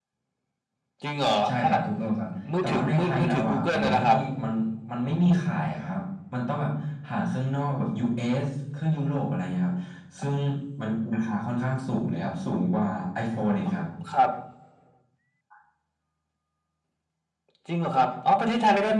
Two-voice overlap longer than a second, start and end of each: 2.6-4.2

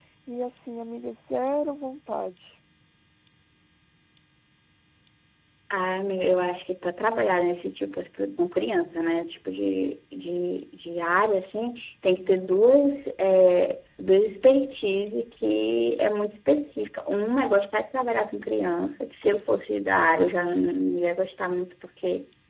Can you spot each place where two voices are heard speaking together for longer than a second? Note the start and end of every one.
none

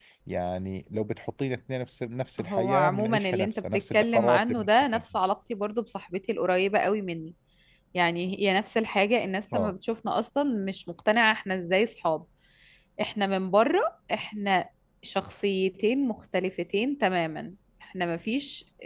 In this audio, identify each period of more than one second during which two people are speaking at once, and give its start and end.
2.4-5.0

